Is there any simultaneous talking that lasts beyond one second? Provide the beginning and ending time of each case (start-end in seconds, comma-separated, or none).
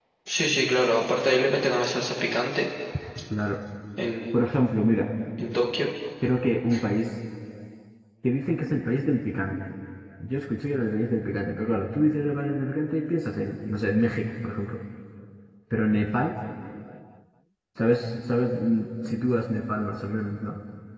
none